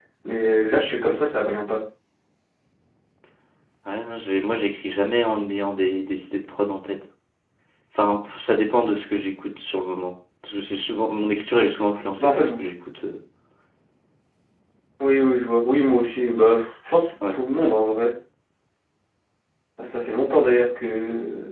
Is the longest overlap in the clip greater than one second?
No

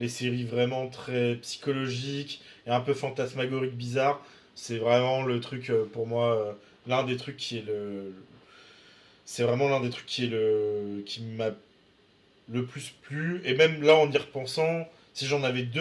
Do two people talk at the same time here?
No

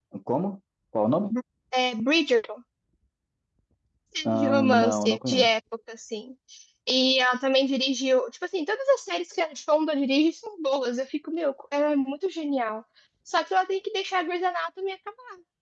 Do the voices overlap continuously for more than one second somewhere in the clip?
Yes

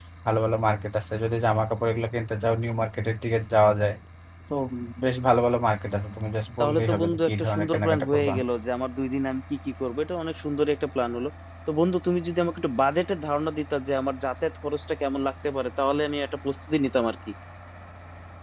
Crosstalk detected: Yes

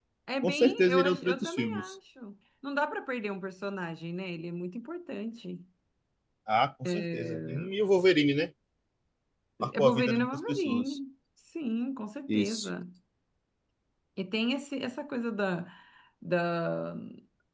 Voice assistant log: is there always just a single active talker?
No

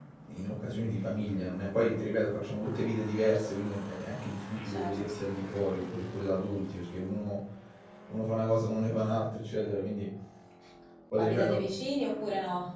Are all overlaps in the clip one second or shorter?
Yes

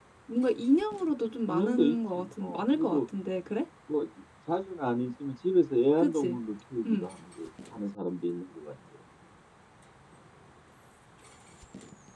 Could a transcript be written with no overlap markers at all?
No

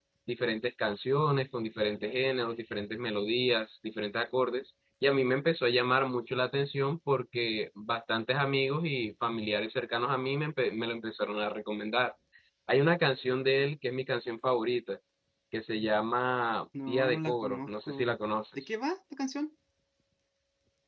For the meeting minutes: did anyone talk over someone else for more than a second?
Yes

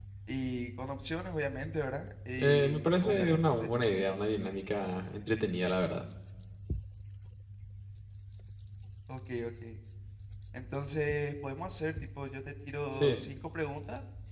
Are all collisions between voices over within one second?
No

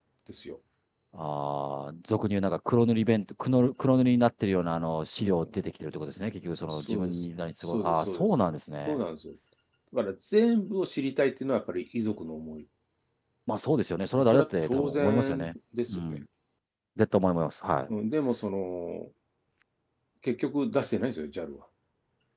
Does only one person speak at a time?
No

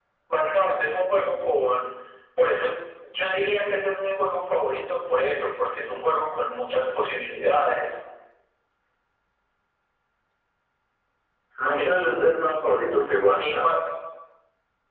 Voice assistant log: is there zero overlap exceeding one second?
Yes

